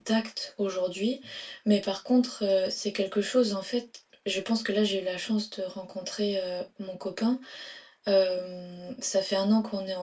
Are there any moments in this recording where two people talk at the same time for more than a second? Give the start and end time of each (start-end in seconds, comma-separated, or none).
none